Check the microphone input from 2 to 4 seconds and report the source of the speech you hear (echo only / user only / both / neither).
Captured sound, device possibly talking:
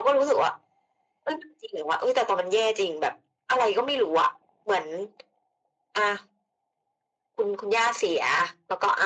echo only